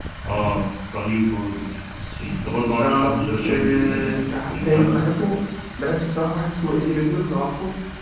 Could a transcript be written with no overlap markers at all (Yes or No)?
No